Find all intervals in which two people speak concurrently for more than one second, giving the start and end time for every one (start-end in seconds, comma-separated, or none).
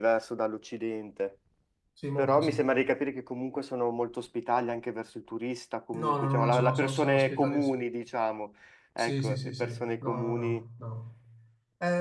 5.9-7.6, 9.0-10.6